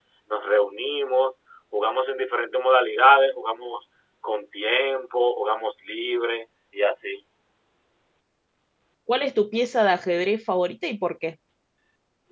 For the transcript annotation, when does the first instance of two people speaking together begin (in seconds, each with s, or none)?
none